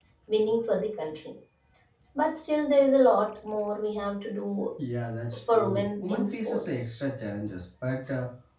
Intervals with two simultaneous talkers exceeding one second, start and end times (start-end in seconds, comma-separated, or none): 5.5-6.8